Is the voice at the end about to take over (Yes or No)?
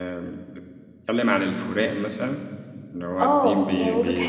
Yes